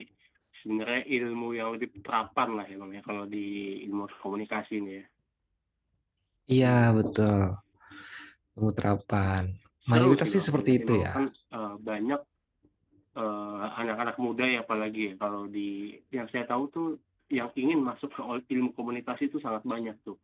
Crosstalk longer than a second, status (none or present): present